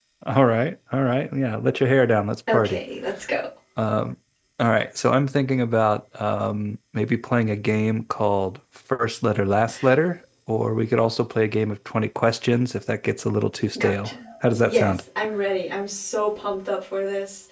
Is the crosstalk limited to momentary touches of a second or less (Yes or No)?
Yes